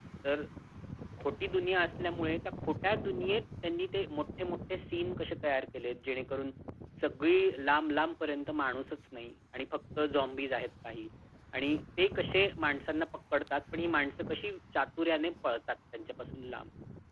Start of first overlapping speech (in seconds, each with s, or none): none